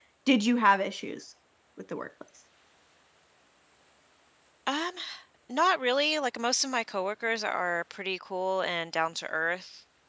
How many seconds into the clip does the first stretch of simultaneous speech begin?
none

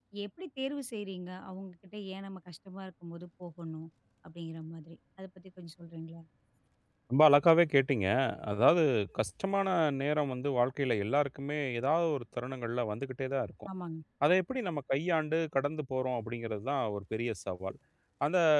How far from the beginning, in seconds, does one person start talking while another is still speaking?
none

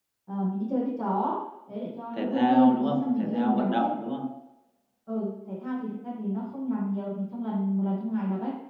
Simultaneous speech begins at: 2.1 s

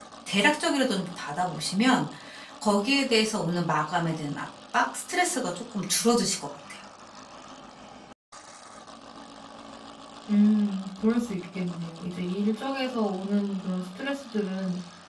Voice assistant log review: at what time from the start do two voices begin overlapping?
none

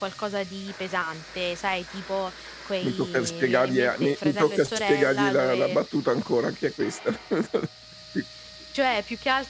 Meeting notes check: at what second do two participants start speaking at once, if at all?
2.8 s

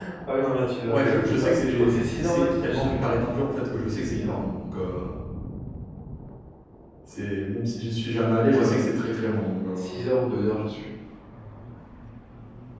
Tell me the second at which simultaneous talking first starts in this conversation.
0.9 s

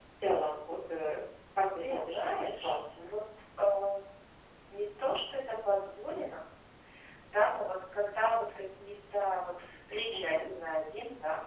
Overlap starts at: 1.8 s

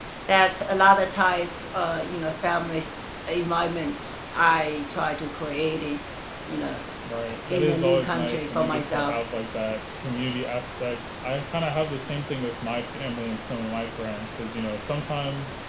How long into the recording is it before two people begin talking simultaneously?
7.5 s

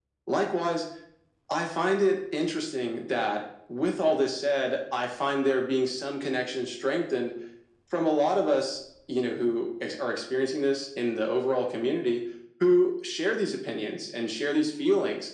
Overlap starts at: none

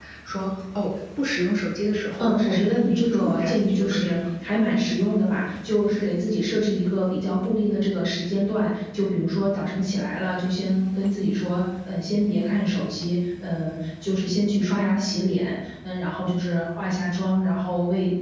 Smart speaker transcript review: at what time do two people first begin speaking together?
2.2 s

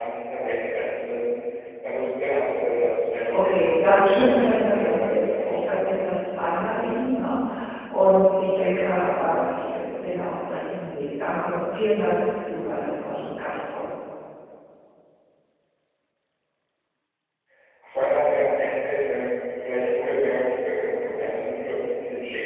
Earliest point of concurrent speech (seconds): 3.3 s

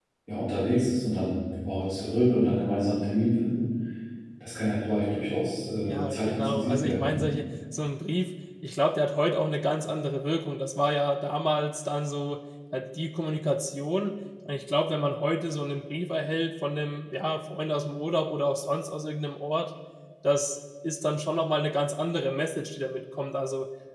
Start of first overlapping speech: 5.9 s

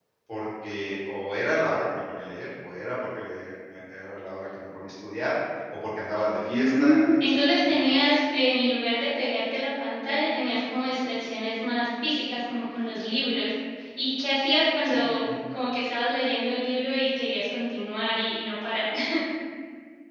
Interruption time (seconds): 6.5 s

